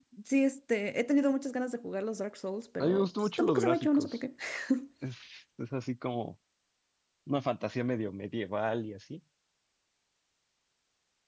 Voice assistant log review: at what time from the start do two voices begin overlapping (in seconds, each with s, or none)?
2.8 s